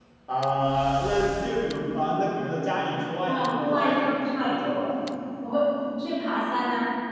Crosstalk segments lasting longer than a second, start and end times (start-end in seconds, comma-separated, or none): 3.2-4.8